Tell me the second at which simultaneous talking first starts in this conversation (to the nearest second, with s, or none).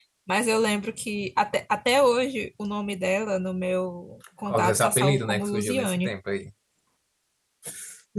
4 s